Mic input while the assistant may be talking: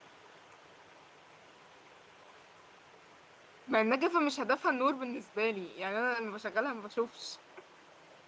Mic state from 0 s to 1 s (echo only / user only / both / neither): neither